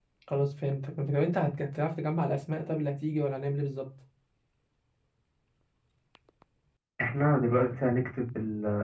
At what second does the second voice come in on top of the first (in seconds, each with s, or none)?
none